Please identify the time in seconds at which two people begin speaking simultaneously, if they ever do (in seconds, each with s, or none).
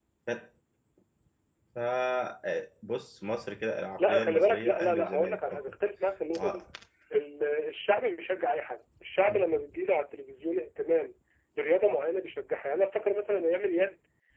4.0 s